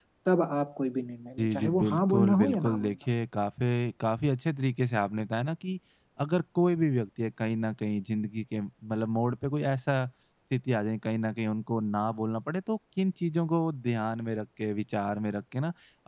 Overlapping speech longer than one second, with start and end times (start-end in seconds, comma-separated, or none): 1.4-3.0